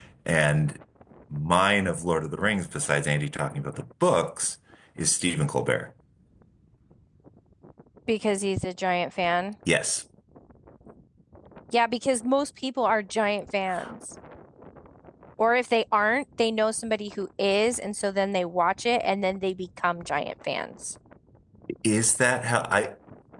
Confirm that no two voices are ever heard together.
Yes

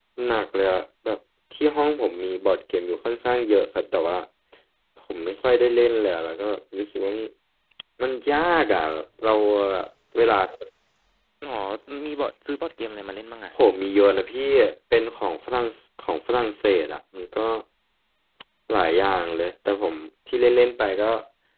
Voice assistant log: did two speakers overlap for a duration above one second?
No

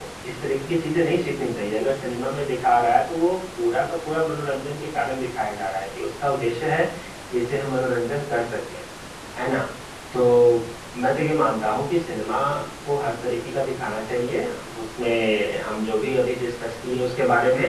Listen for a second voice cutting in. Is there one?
No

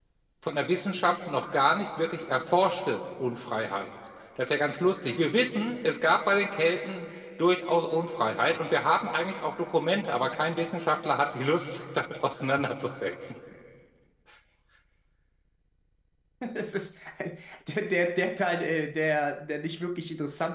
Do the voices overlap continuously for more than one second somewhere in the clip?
No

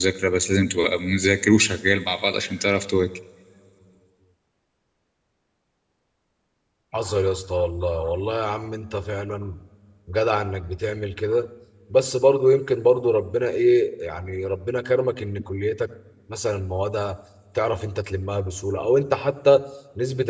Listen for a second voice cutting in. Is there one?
No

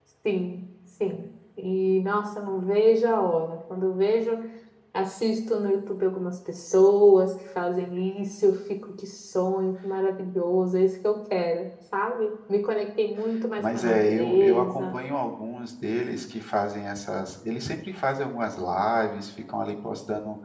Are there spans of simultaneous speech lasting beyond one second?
Yes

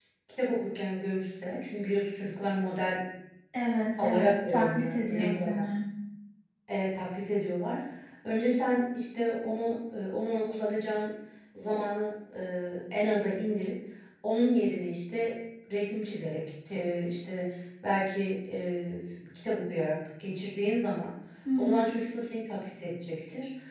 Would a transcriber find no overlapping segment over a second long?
No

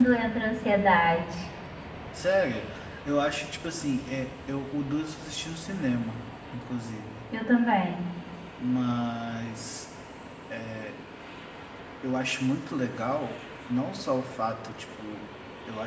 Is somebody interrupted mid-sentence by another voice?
No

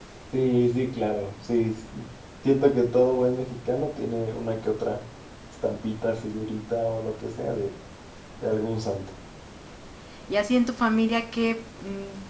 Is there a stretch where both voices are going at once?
No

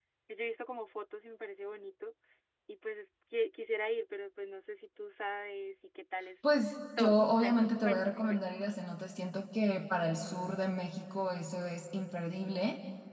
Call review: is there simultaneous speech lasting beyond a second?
Yes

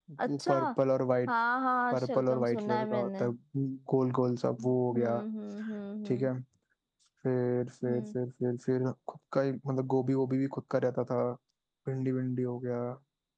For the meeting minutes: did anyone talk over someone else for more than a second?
Yes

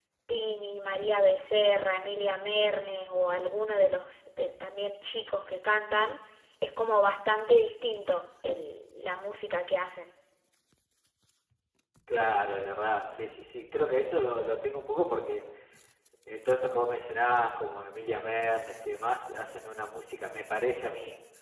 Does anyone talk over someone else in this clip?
No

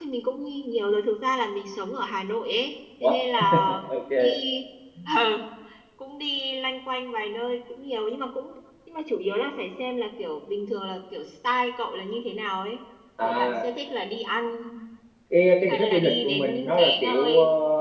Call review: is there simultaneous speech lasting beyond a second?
Yes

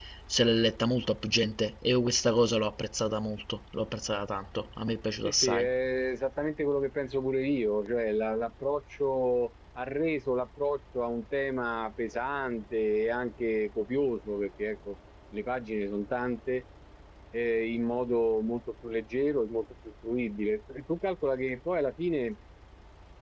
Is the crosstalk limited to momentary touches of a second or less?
Yes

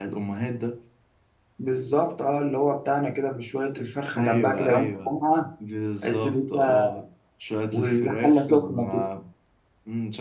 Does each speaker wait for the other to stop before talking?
No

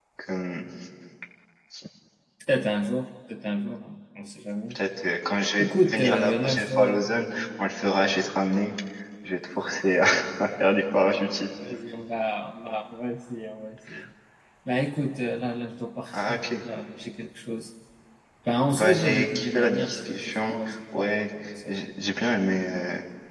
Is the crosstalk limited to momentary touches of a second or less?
No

